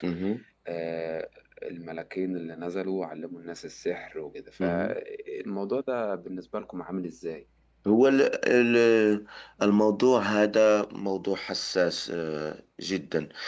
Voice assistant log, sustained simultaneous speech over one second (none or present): none